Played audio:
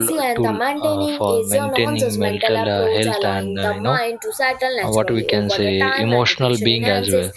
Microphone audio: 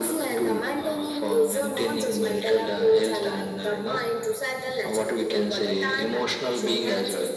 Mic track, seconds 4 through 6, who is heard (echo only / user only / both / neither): echo only